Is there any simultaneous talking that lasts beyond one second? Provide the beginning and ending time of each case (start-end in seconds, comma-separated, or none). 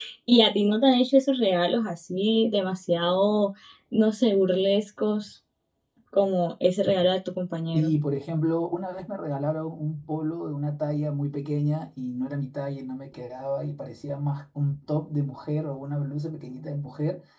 none